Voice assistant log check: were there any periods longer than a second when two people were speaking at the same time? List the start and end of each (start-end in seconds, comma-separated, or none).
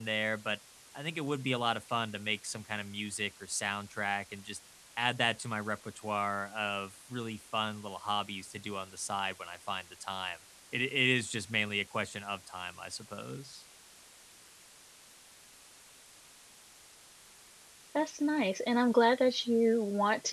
none